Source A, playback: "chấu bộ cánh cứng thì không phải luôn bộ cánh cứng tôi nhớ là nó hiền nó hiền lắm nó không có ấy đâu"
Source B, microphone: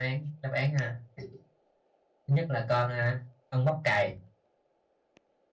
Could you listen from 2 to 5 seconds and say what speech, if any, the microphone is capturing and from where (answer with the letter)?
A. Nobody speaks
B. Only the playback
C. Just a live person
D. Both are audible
C